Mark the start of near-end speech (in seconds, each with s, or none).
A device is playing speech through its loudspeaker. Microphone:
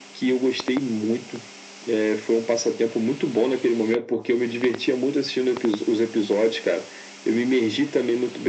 none